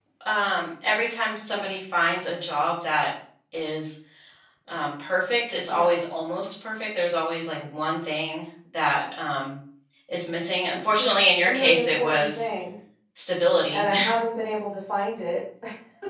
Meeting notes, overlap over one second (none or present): present